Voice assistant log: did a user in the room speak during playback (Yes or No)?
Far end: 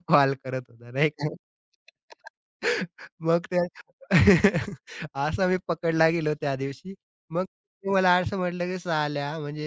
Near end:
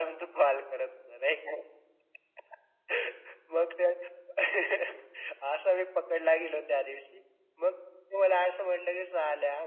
No